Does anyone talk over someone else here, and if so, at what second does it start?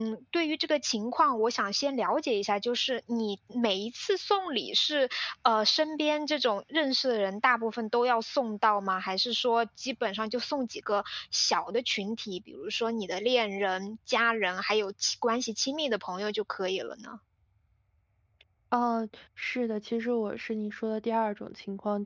none

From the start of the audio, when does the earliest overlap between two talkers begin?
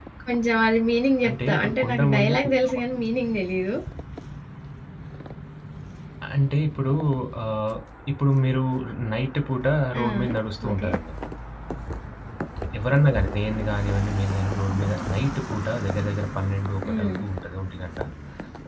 1.3 s

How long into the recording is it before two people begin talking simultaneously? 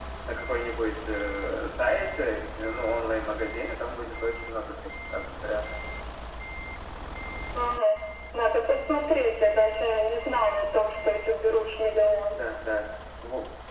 none

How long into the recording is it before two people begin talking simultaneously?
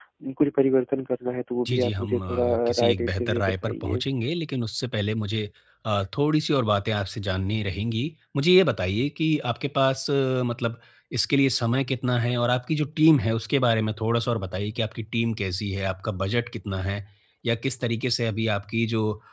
1.6 s

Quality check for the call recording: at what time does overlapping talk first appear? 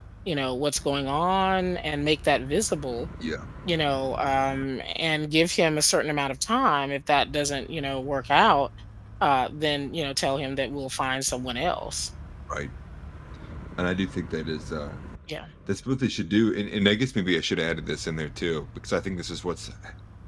none

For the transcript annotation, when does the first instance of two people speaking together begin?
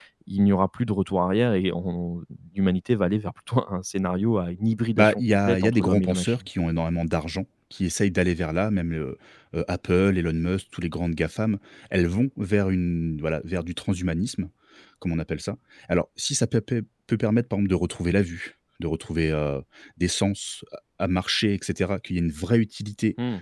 5.0 s

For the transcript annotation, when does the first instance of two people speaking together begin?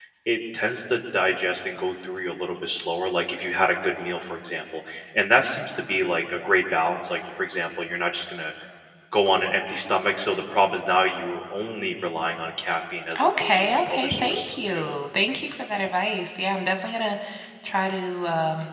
13.1 s

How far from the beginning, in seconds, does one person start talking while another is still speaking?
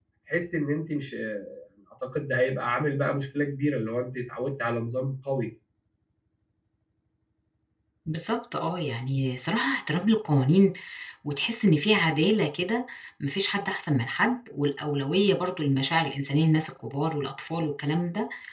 none

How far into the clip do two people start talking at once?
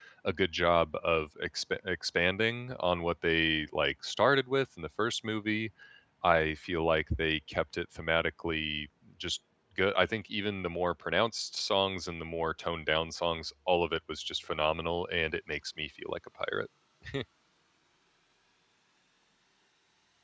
none

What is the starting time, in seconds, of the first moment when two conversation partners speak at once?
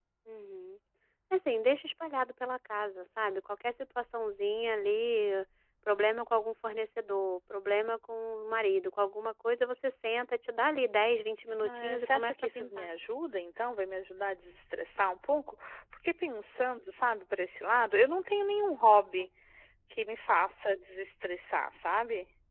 11.6 s

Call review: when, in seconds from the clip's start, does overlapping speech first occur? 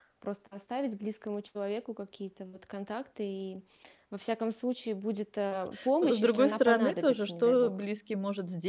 6.0 s

